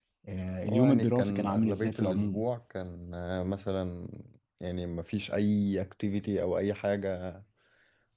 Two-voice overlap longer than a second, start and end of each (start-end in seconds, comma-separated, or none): 0.7-2.4